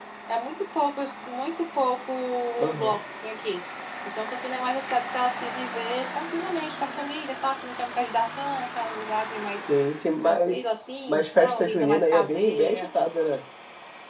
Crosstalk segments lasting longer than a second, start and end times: 11.1-12.9

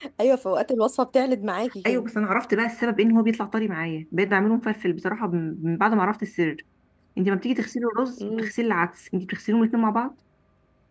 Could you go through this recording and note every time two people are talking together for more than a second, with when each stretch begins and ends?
none

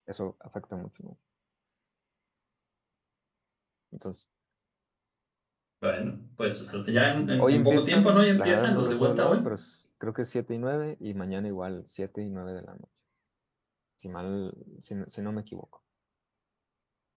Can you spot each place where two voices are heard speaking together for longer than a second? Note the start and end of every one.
7.4-9.4

